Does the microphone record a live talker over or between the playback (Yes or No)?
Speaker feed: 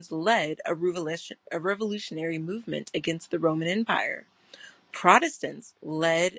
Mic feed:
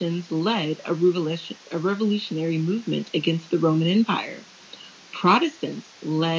No